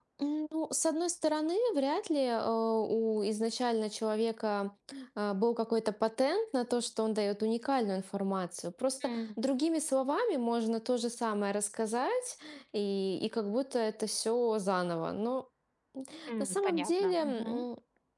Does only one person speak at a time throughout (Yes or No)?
No